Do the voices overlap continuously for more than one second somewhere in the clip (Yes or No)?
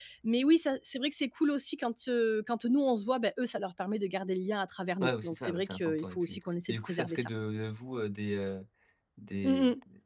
Yes